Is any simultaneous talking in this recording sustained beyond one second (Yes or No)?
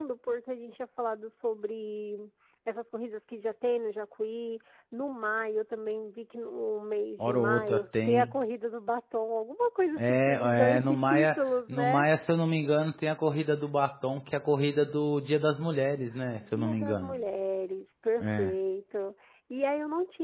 Yes